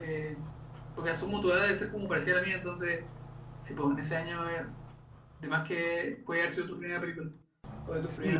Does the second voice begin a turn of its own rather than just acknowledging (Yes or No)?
Yes